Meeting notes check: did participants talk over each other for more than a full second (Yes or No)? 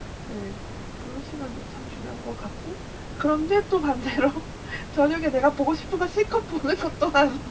No